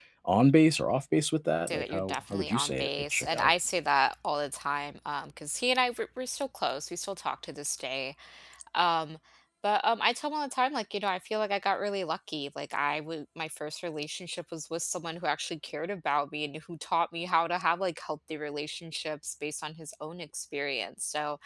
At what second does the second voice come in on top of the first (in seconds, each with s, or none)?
1.7 s